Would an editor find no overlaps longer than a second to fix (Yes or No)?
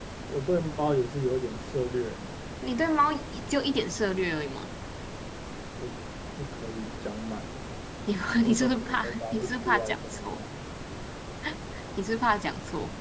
No